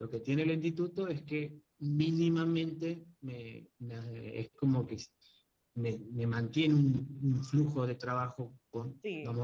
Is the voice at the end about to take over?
Yes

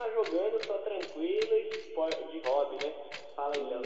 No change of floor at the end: No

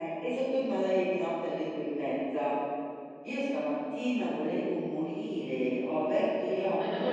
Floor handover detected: No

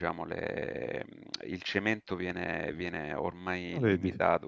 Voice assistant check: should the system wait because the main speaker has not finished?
Yes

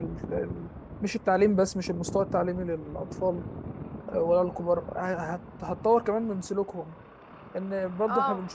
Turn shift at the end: No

